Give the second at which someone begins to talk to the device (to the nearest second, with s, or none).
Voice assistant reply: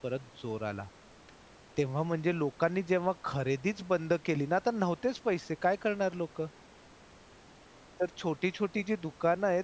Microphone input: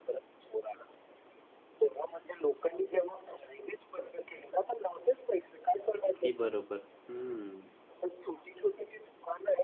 6 s